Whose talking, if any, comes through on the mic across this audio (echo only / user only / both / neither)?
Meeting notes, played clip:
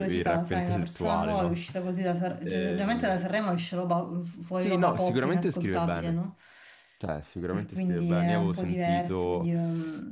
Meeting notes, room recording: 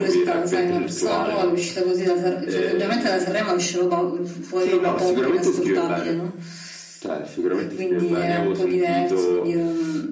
echo only